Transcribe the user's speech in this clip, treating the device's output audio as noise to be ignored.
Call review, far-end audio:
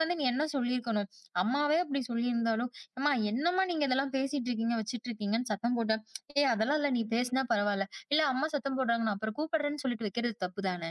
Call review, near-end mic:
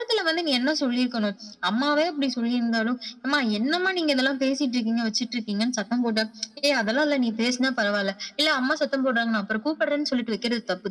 none

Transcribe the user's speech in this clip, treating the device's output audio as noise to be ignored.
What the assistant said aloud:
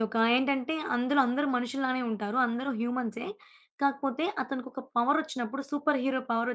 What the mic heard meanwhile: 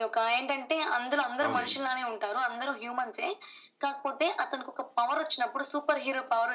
అవునండి.

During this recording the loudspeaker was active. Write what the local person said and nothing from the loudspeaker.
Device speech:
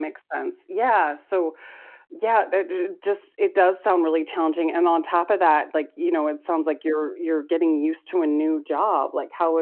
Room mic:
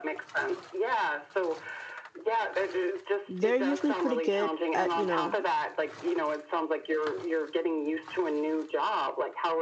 they're usually pretty good at, you know,

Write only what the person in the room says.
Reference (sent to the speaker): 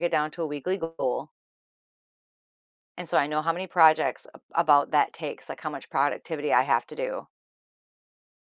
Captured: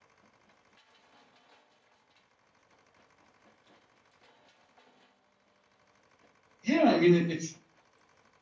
Yeah. I mean, it, it's

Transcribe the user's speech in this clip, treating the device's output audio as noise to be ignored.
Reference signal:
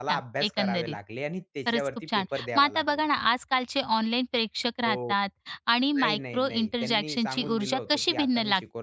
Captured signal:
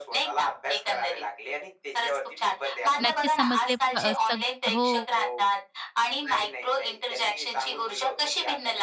नक्कीच समजले. प- अ, सग हो.

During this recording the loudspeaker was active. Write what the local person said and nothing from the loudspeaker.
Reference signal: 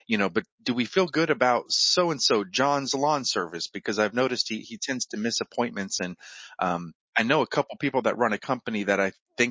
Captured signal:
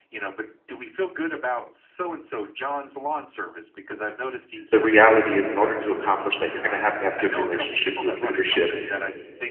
the reality is, in order to accomplish that, you're going to have to have good relationships with leadership.

